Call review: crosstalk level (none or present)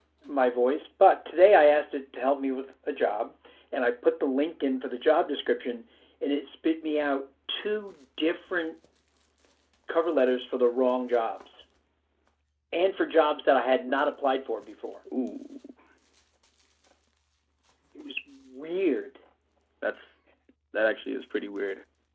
none